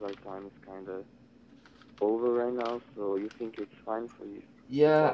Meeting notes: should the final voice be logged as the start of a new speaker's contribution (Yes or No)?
Yes